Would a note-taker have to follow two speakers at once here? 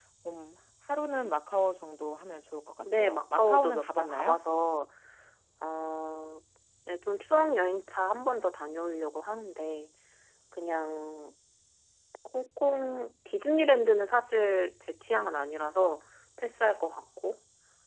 Yes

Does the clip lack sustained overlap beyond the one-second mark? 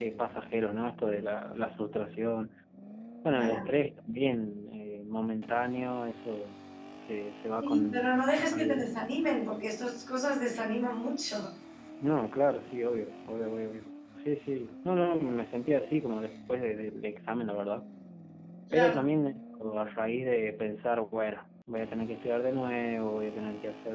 No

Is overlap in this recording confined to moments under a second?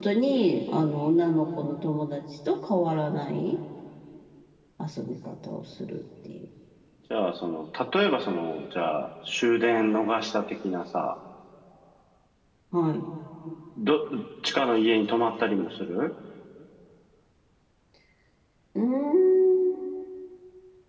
Yes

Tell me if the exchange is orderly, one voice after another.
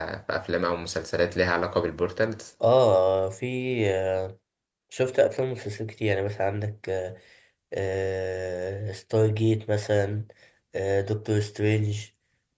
Yes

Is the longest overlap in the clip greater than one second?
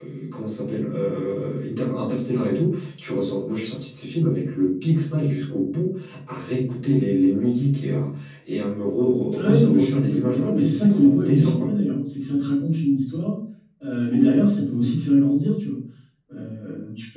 Yes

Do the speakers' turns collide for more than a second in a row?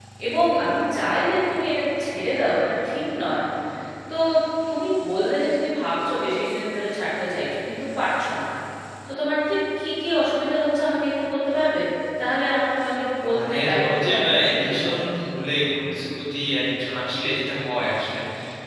Yes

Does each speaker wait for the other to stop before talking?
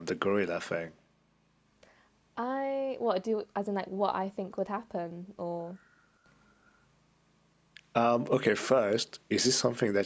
Yes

